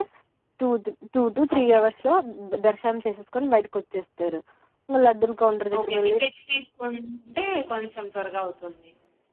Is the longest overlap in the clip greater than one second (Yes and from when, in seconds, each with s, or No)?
No